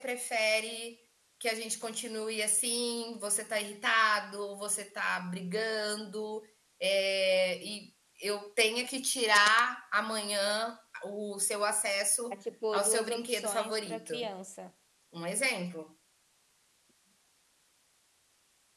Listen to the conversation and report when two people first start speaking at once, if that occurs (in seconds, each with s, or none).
12.8 s